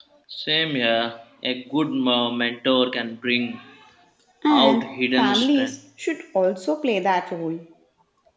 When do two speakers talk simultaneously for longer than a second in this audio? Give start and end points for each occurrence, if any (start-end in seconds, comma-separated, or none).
4.5-5.8